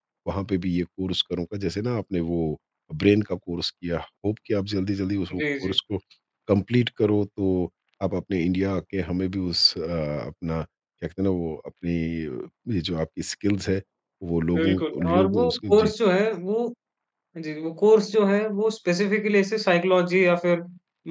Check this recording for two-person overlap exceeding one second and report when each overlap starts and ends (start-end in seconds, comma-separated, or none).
14.5-15.9